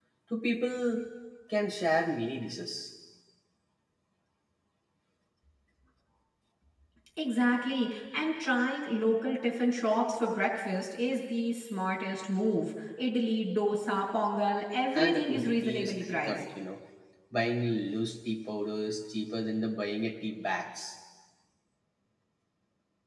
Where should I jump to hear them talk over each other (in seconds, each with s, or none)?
14.9 s